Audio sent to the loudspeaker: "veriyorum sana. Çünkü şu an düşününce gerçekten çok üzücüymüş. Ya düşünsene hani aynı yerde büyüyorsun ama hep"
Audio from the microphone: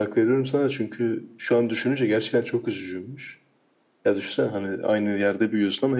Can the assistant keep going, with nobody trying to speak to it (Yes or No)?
Yes